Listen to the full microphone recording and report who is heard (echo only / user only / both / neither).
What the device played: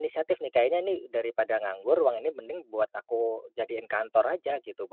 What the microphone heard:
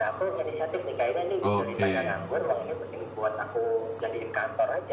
both